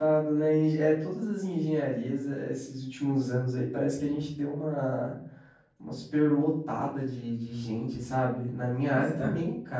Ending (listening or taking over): listening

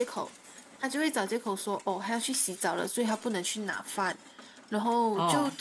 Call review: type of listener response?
listening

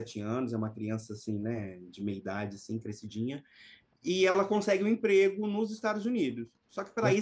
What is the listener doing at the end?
listening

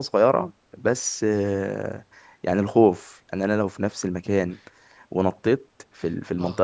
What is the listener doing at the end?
listening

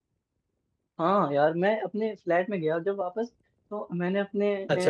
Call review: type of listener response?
listening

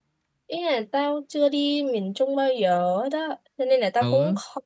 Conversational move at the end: listening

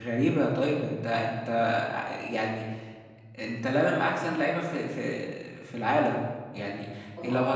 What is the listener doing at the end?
listening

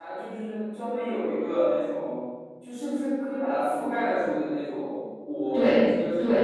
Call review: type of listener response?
taking over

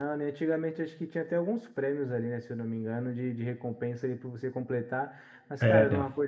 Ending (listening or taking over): listening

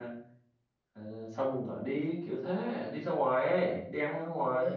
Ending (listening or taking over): taking over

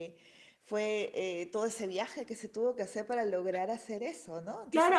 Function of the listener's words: taking over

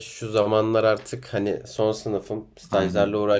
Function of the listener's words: listening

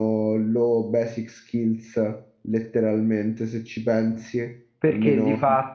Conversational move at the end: taking over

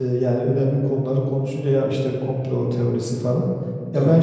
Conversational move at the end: listening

